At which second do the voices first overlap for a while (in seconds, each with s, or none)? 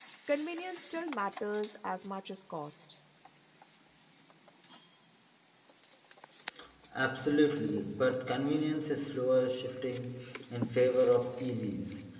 none